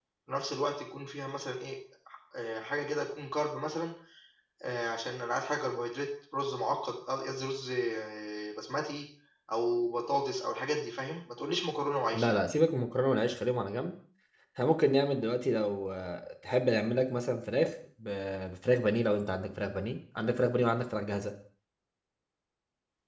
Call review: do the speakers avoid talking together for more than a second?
Yes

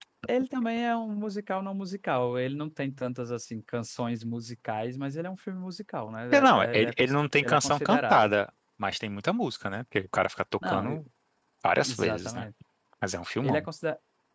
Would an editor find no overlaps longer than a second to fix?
No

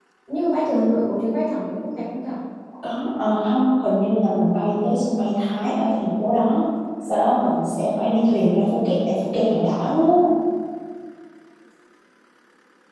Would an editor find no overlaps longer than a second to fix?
Yes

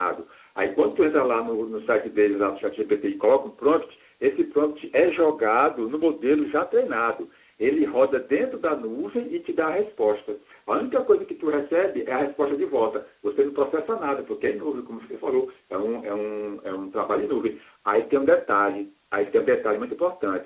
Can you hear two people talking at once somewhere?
No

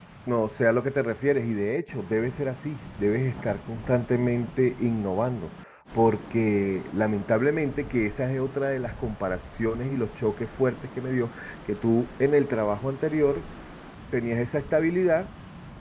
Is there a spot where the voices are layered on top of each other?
No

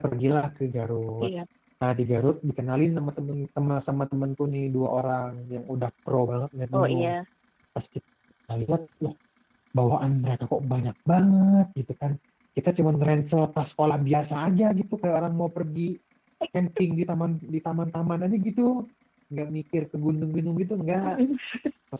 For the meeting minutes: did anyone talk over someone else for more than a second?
No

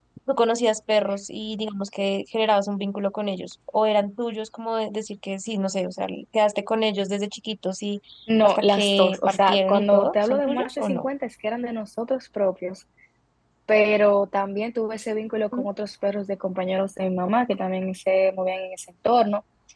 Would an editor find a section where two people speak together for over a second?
Yes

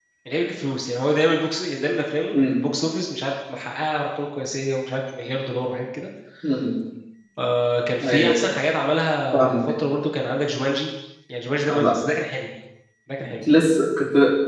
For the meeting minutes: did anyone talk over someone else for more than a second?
No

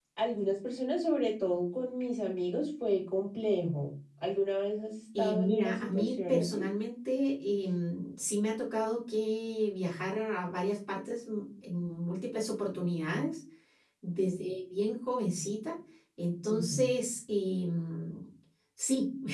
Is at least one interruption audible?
Yes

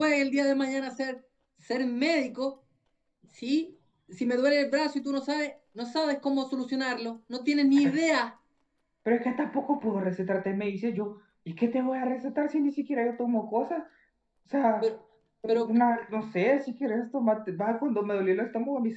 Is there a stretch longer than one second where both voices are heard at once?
No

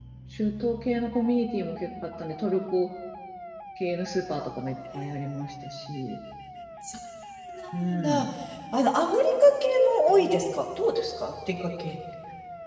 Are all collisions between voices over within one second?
Yes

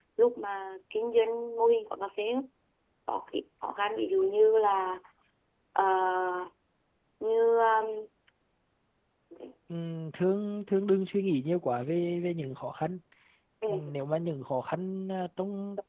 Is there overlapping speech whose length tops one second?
No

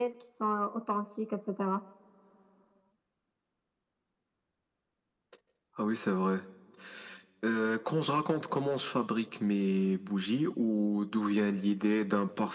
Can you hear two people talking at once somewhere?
No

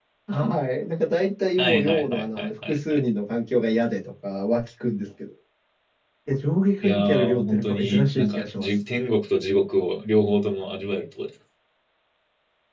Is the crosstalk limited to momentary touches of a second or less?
No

